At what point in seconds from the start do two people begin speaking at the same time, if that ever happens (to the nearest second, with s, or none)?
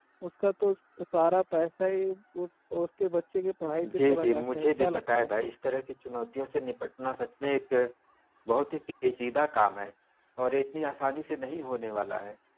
4 s